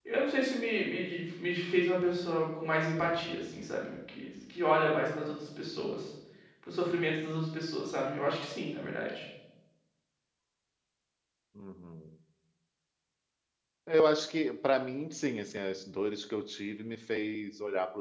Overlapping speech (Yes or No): No